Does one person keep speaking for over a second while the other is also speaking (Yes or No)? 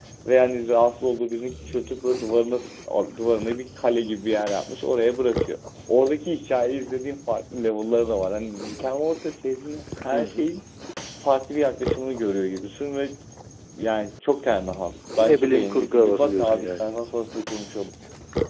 Yes